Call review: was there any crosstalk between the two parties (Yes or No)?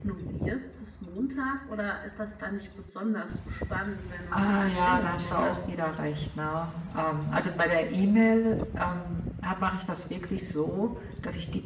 Yes